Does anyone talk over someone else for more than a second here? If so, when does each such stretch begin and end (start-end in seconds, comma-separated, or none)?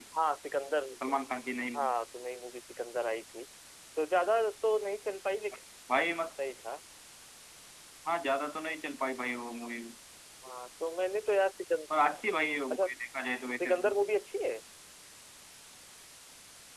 none